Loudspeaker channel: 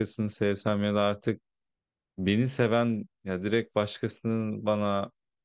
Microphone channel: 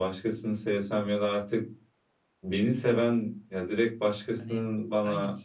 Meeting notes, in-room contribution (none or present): present